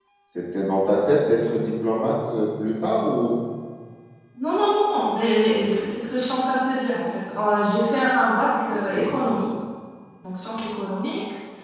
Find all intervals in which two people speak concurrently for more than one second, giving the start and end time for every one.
none

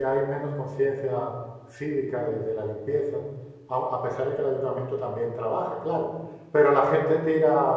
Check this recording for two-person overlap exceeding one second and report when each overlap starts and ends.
none

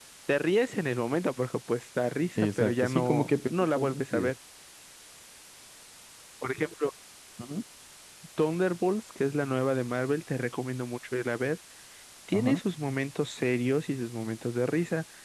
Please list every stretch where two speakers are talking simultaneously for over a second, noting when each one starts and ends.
2.4-4.3

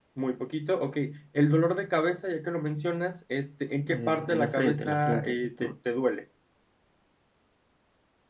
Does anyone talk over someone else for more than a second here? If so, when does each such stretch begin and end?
3.9-5.7

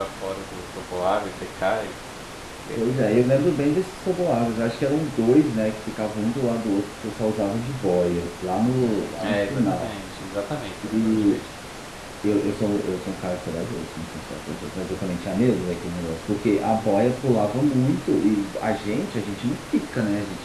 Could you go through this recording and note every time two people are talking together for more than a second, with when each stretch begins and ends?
8.6-9.9

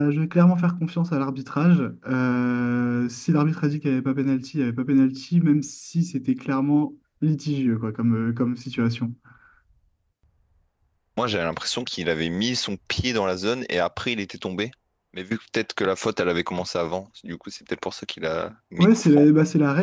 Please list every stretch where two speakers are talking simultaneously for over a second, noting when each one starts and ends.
none

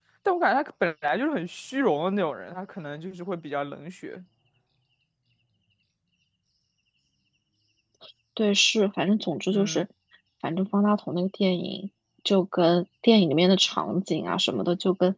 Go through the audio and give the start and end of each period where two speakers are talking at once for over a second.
none

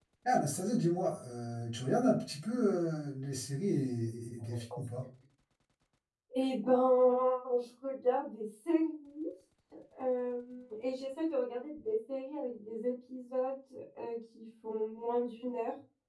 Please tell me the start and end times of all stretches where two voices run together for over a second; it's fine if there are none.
none

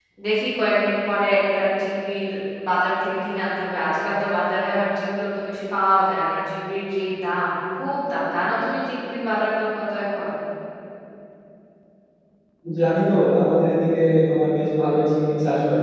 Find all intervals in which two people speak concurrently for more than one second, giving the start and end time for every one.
none

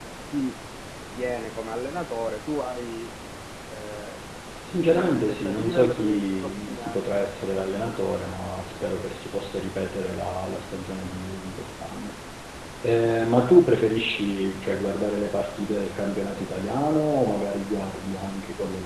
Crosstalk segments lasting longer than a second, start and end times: 4.9-7.1

